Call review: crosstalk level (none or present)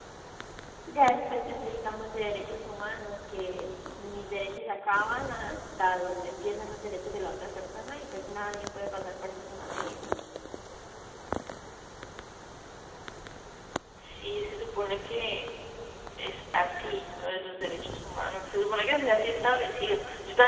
none